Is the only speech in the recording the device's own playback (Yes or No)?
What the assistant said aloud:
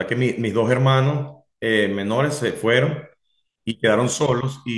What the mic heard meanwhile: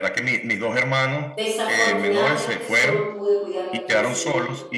No